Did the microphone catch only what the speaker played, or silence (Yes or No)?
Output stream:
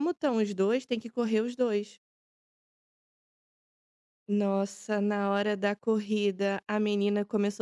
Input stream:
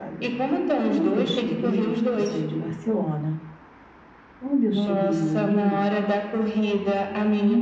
No